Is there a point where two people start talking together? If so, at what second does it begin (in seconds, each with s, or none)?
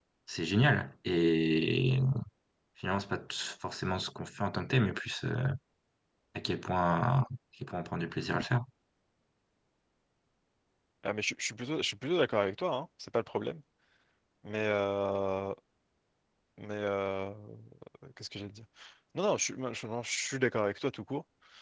none